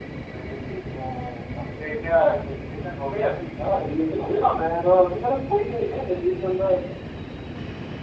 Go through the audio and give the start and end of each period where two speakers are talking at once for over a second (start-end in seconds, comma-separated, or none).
none